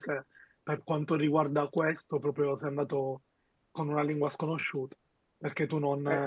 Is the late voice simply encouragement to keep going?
Yes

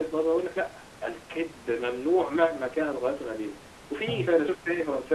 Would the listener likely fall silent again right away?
Yes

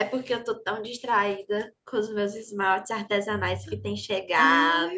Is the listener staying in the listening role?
No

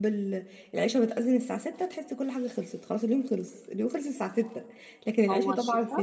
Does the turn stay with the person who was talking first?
Yes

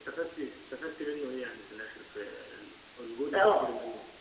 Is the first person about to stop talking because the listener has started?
Yes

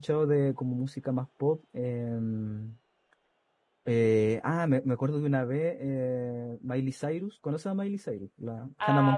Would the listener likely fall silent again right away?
No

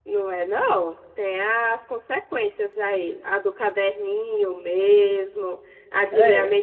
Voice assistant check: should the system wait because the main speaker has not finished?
Yes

